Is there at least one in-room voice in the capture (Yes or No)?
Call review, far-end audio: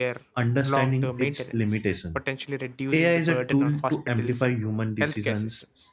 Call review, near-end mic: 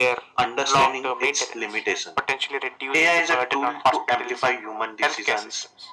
No